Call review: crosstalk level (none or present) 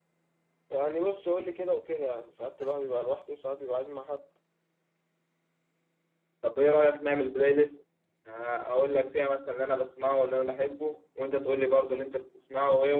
none